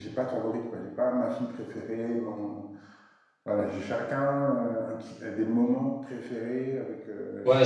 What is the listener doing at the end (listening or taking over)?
taking over